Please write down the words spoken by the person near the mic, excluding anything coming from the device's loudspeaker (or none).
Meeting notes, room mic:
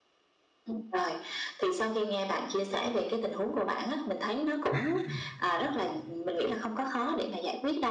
À.